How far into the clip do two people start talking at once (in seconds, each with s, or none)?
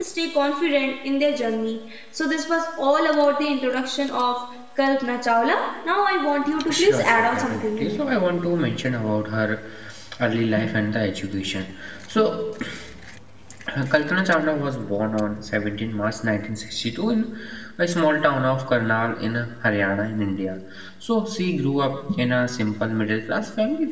6.6 s